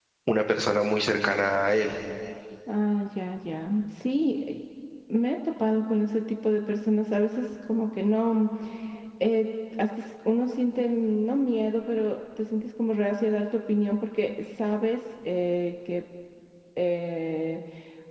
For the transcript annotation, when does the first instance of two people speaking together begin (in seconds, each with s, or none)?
none